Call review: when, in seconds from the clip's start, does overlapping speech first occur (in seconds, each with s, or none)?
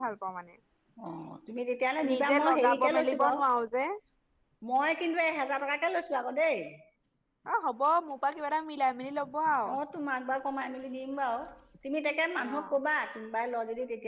2.1 s